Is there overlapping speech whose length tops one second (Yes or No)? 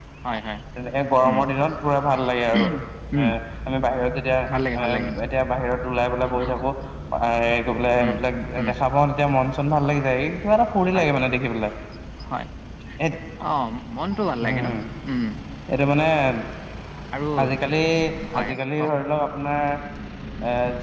No